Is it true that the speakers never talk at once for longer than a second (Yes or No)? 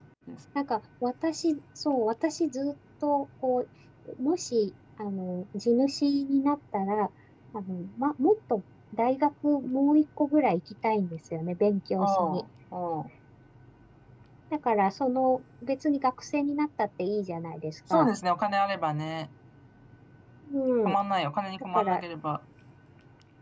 Yes